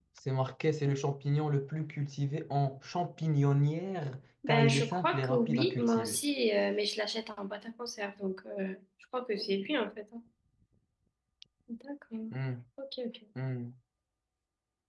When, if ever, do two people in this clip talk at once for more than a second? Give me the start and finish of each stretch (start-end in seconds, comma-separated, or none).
4.5-6.2